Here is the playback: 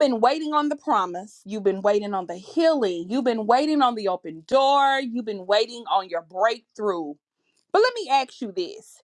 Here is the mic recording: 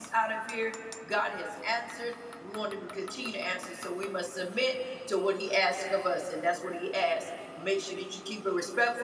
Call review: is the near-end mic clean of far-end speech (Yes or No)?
Yes